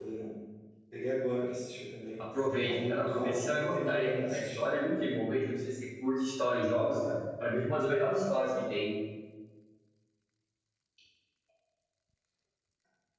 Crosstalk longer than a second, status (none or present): present